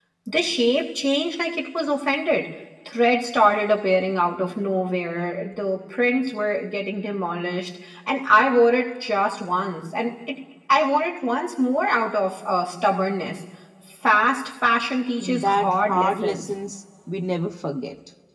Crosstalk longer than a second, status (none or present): present